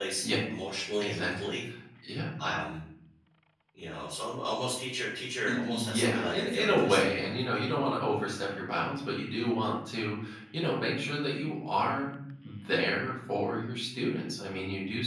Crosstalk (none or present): present